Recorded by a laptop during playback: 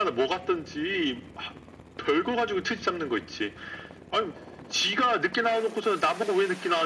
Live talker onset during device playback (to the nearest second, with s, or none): none